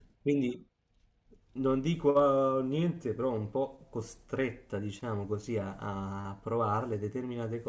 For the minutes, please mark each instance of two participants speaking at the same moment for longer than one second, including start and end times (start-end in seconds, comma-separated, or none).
none